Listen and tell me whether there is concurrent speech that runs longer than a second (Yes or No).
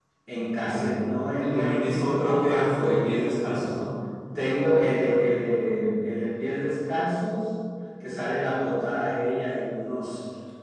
Yes